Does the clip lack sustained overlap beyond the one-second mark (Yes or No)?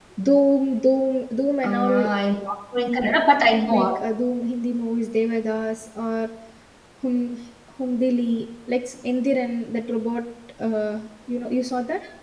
Yes